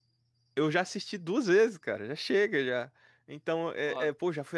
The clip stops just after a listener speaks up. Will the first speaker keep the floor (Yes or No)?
Yes